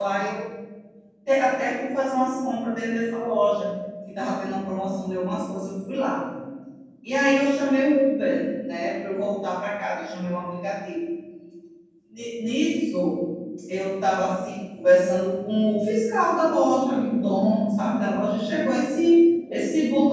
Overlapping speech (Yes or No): No